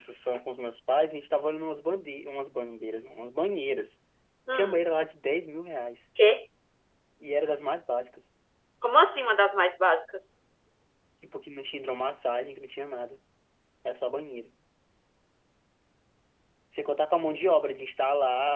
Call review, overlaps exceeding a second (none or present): none